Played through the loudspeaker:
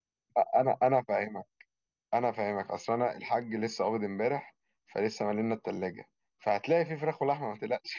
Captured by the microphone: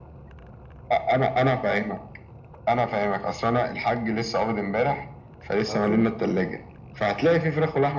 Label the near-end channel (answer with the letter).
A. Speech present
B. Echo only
A